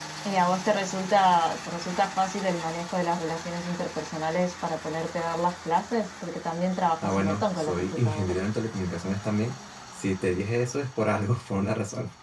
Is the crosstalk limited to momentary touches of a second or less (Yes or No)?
No